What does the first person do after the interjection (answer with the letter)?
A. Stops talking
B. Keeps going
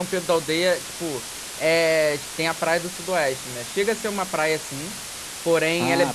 B